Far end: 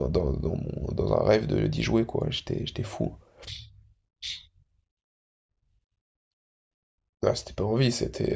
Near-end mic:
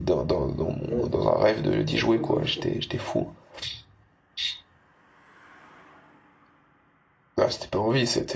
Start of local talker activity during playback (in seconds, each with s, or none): 0.8 s